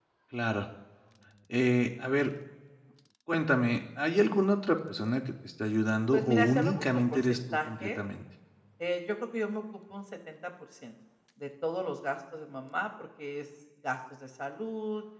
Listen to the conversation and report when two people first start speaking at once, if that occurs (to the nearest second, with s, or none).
6 s